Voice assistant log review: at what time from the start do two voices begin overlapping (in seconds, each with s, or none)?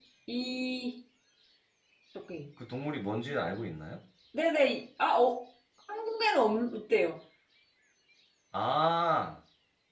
none